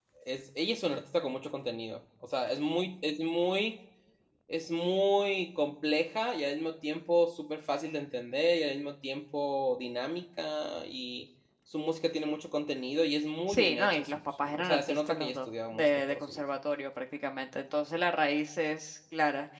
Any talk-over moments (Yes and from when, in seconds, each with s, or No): Yes, from 13.5 s